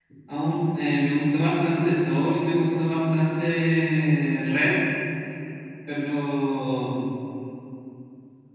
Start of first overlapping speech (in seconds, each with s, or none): none